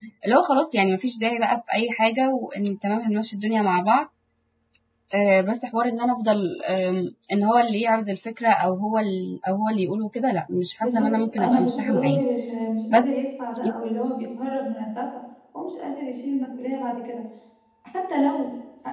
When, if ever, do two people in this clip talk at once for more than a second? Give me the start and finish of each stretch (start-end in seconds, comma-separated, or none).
10.8-12.2